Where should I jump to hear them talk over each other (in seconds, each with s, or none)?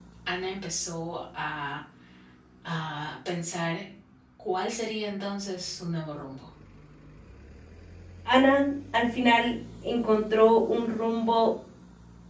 none